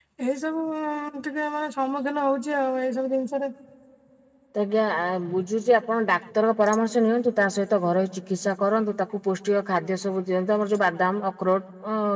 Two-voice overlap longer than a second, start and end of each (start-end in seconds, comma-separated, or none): none